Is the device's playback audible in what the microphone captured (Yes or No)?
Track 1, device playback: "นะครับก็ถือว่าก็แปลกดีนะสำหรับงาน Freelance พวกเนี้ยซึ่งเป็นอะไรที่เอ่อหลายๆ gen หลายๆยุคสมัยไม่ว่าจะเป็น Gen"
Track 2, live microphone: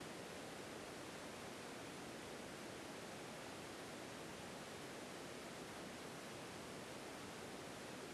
No